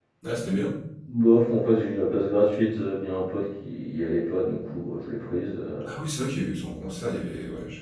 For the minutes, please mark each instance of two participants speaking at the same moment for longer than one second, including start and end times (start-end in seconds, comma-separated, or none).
none